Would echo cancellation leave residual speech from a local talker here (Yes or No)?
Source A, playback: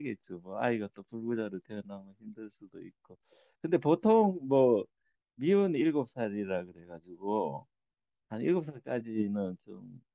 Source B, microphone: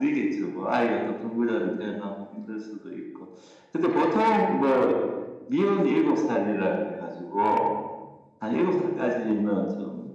No